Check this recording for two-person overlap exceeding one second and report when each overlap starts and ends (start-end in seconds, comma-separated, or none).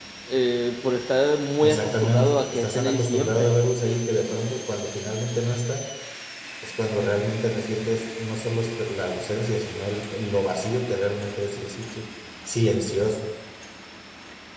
1.6-3.5